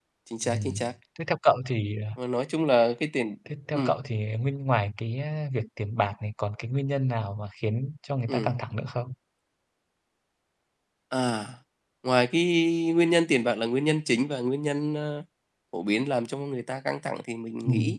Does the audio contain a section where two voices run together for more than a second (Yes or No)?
No